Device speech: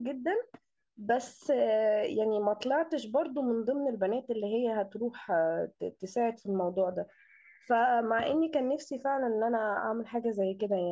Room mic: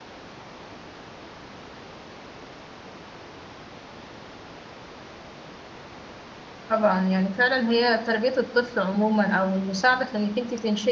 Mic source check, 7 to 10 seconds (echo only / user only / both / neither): user only